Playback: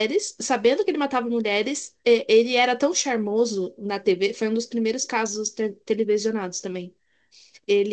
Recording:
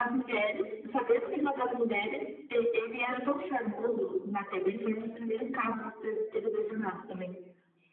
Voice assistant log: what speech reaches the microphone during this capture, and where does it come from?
echo only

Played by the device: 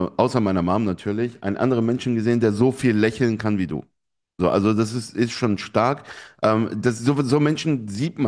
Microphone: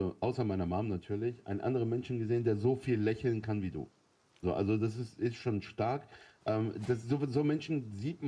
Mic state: echo only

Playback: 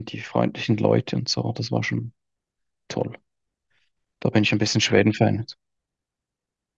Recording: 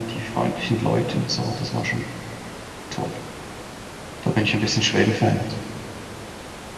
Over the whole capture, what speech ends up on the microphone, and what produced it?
echo only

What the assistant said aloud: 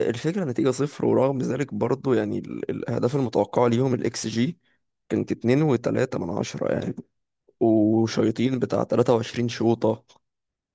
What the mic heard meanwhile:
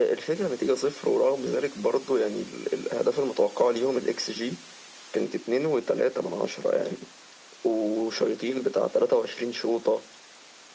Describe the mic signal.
echo only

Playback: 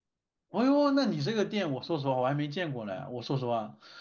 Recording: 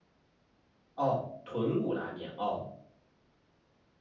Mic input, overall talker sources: user only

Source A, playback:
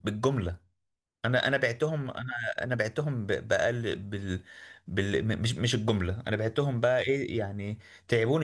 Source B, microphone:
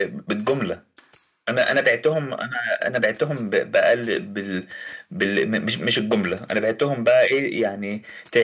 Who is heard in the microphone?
echo only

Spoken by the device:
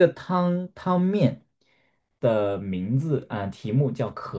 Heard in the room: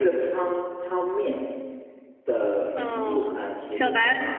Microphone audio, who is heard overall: both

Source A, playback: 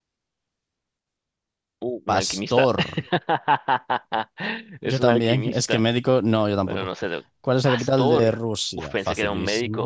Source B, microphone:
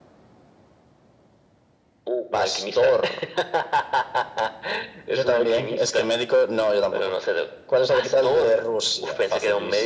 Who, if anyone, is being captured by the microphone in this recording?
echo only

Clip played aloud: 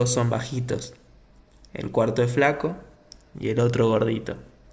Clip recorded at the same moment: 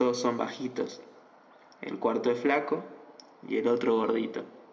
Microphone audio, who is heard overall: echo only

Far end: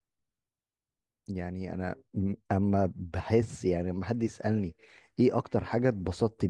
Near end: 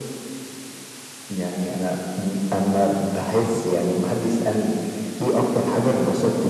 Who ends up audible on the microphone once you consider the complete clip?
echo only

